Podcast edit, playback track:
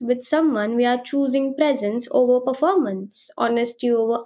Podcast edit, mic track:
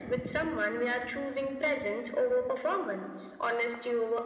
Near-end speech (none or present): none